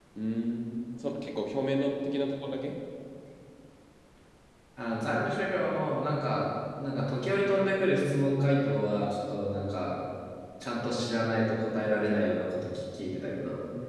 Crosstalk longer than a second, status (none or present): none